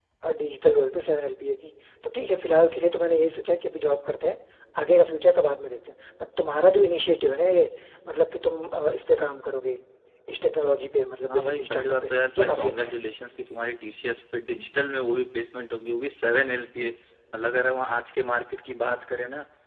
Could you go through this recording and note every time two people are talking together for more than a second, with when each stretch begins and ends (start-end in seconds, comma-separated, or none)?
11.3-13.0